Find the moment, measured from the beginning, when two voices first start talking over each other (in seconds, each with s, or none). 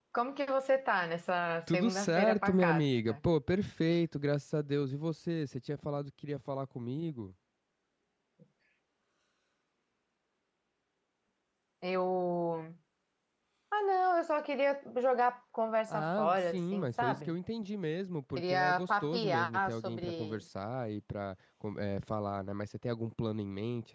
1.7 s